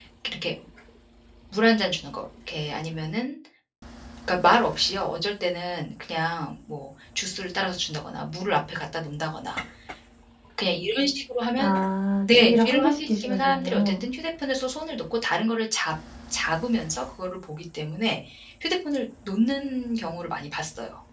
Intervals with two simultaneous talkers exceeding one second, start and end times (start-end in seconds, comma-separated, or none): 12.3-14.0